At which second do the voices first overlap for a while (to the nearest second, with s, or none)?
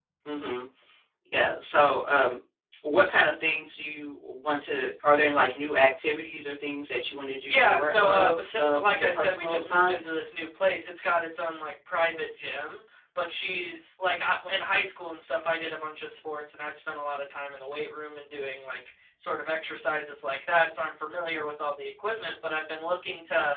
7 s